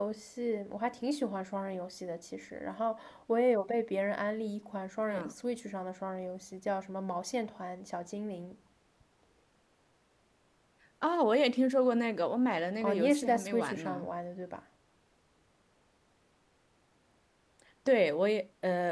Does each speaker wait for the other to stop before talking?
No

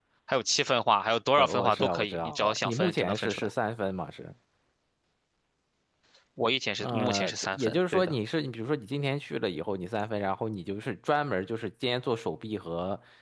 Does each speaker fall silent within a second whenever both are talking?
No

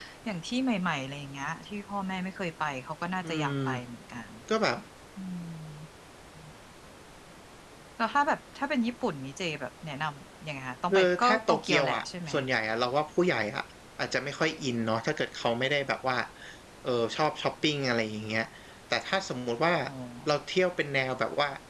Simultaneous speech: Yes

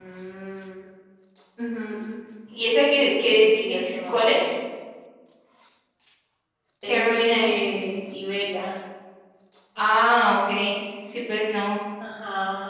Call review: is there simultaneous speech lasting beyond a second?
Yes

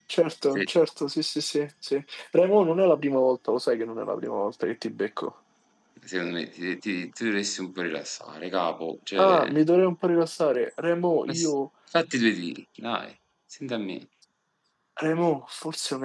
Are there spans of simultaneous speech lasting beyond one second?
No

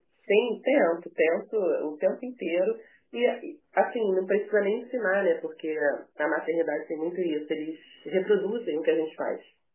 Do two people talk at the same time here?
No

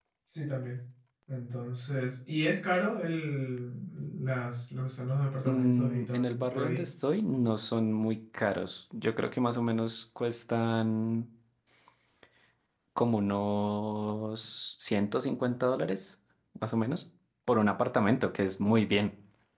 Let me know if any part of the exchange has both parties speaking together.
Yes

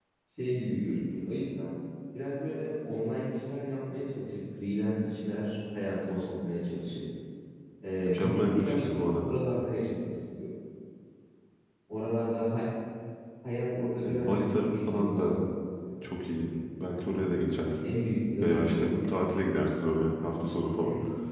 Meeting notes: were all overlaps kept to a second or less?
No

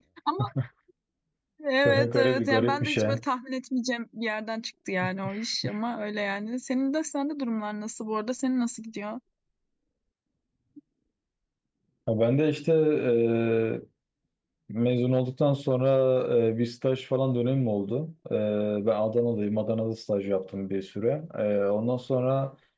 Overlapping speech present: Yes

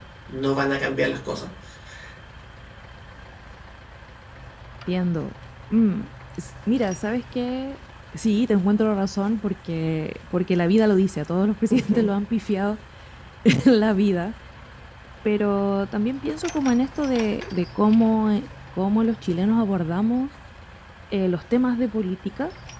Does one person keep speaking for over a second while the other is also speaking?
No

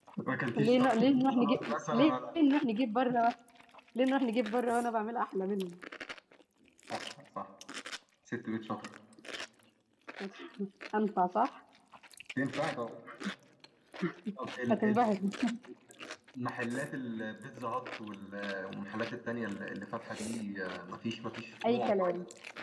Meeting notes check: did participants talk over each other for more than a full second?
Yes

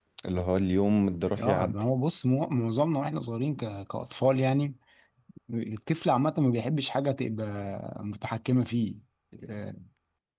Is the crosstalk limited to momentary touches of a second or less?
Yes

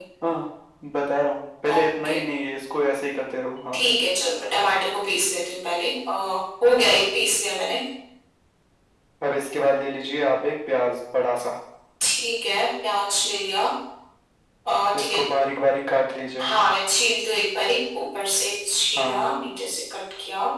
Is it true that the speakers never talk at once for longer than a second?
Yes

